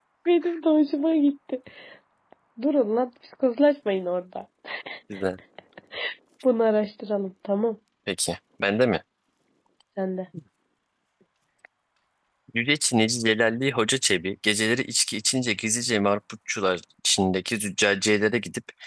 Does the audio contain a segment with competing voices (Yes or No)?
No